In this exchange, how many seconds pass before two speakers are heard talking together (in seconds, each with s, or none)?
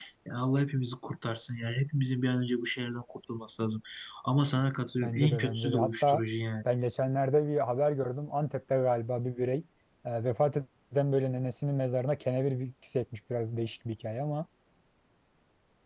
5.0 s